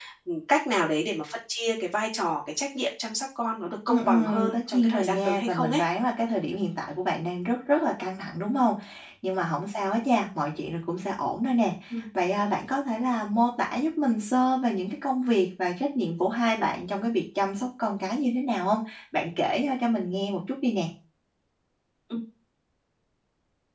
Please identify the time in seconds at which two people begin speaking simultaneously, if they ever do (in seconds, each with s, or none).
3.9 s